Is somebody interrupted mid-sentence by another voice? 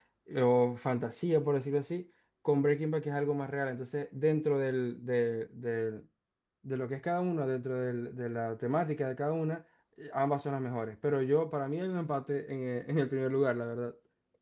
No

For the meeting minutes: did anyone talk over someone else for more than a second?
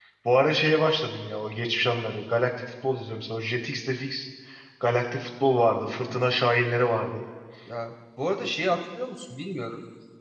No

